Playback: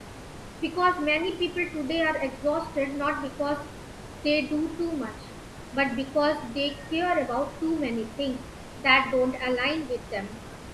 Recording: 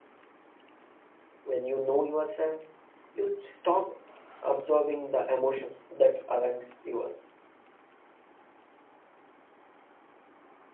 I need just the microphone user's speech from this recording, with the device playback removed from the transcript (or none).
When you know yourself, you stop absorbing the emotions that aren't yours.